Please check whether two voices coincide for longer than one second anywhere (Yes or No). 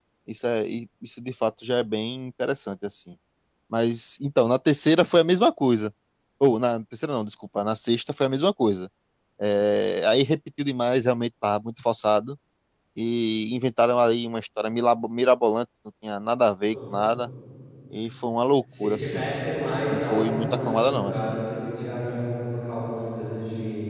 Yes